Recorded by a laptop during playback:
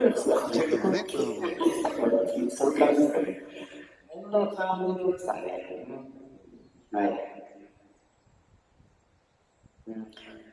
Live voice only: 1軍をね、うんうん。

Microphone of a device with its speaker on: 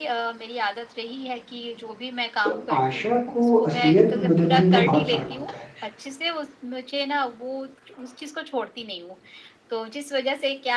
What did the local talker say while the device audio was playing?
तो आशा को असलियत में बदलने में बहुत फर्क होता है।

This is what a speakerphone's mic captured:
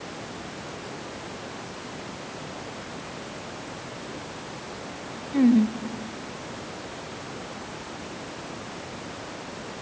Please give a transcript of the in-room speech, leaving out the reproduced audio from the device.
हं, हं.

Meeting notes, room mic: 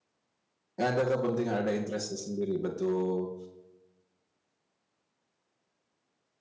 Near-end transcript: Ada kepentingan ada interest-nya sendiri, betul.

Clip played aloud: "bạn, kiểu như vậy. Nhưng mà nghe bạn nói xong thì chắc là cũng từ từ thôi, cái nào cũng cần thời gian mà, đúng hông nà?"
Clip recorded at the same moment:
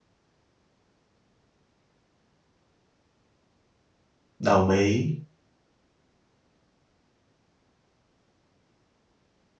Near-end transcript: Đồng ý.

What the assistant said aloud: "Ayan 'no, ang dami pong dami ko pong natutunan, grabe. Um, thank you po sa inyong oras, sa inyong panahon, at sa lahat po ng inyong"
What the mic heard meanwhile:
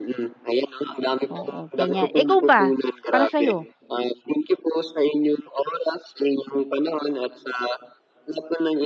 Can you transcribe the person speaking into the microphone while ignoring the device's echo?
Oo, ganyan. Eh, ikaw ba, para sa 'yo?

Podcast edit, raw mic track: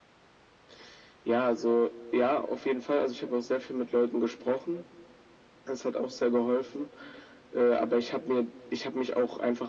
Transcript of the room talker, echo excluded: none

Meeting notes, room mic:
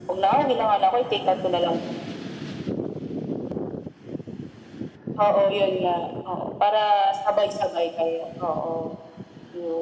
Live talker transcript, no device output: none

